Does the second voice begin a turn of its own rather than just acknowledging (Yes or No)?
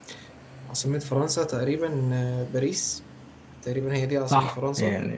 Yes